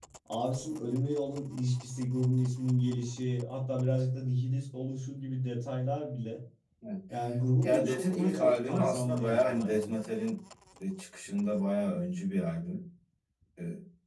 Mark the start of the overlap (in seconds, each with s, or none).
7.6 s